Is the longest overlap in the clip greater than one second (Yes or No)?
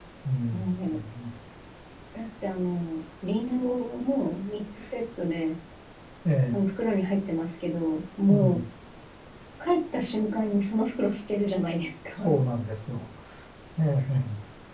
No